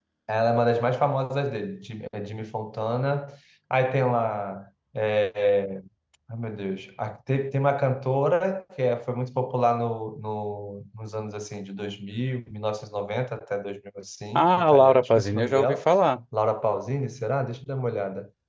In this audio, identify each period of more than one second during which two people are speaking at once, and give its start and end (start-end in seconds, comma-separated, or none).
14.4-15.8